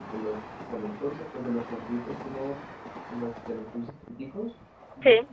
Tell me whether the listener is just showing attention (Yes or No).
Yes